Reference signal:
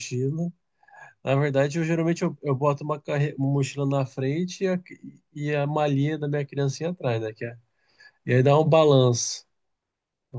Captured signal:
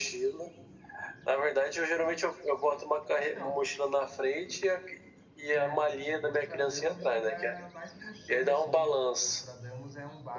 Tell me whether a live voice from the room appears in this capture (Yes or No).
Yes